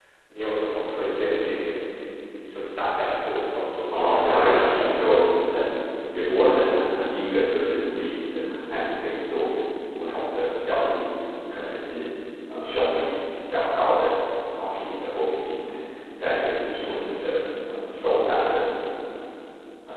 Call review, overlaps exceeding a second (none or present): present